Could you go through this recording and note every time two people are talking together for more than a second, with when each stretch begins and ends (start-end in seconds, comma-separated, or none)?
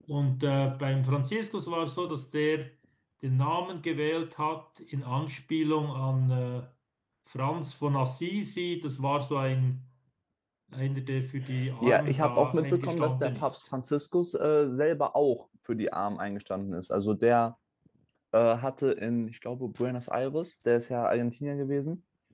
11.8-13.5